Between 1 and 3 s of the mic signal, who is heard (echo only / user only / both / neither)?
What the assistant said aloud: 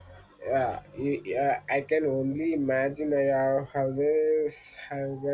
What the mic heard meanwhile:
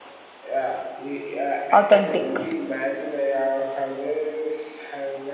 both